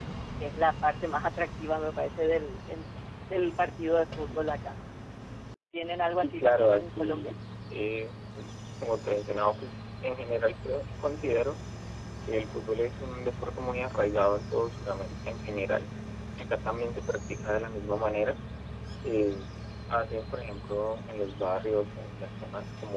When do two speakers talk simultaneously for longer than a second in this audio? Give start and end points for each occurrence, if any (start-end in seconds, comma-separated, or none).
6.1-7.3